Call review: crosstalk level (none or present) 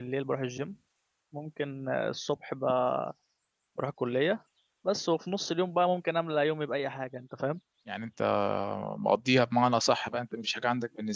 none